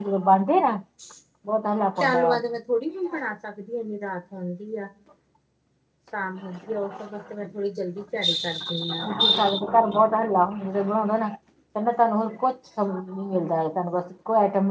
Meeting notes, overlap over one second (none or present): none